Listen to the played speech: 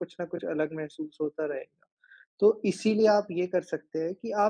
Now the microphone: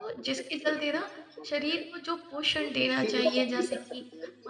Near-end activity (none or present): present